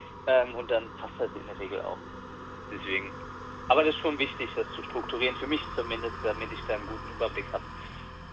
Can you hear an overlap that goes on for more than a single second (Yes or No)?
No